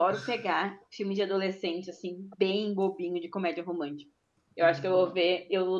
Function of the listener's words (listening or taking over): listening